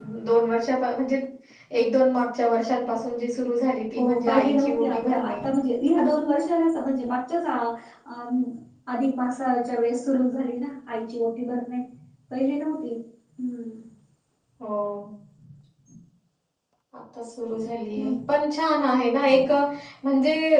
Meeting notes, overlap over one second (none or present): present